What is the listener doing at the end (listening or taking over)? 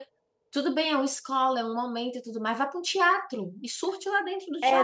taking over